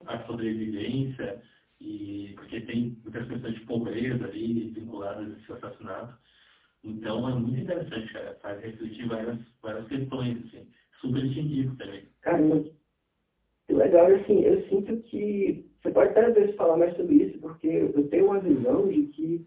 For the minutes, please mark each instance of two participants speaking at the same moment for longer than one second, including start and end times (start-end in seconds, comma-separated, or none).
none